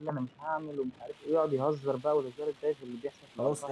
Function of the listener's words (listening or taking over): taking over